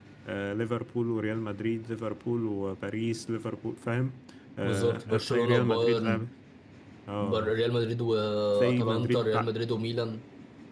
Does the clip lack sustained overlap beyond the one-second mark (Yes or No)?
No